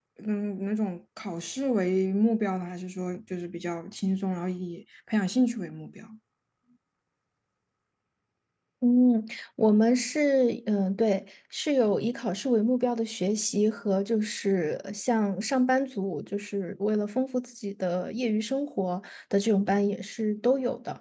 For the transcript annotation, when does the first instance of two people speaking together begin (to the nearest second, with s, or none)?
none